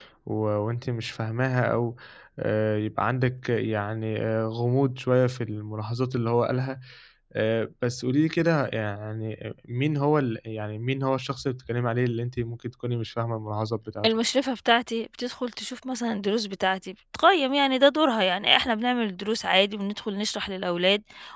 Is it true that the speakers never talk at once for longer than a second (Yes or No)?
Yes